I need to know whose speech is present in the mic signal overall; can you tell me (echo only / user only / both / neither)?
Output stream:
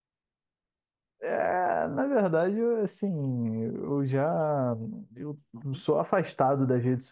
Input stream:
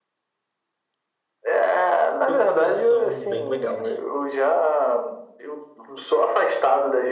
both